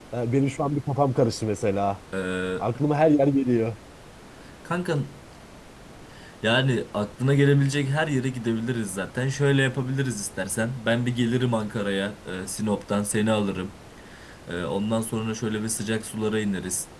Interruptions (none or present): none